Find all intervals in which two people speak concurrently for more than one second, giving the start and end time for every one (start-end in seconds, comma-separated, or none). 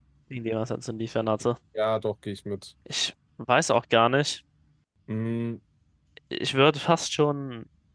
none